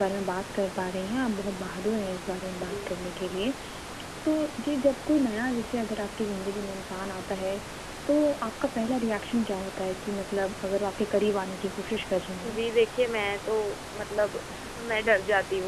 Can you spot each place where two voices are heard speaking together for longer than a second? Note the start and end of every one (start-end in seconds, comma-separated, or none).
none